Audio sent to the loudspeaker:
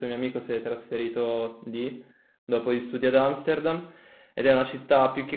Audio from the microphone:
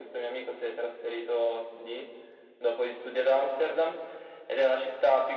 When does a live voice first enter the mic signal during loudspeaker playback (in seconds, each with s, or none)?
none